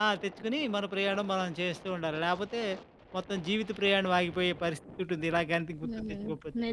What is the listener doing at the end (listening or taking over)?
taking over